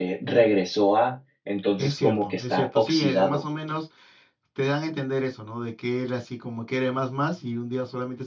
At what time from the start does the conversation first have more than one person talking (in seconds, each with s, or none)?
1.8 s